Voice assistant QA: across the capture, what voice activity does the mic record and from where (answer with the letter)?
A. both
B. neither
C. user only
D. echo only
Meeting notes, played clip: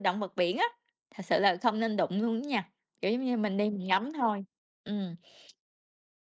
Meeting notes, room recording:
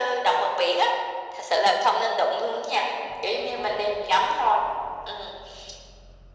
D